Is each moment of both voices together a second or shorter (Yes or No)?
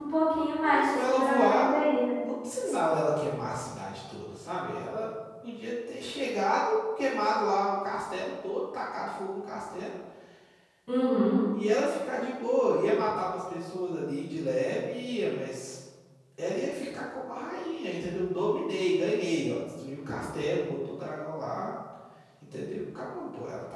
No